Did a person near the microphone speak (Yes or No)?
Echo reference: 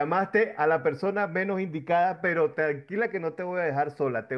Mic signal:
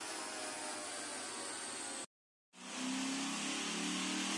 No